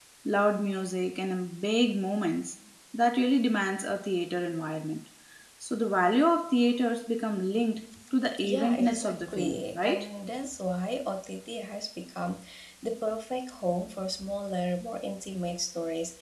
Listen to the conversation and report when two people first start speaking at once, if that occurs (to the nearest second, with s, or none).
8 s